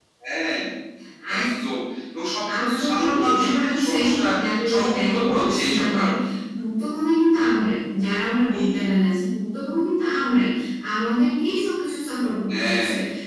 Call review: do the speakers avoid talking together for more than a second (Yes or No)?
No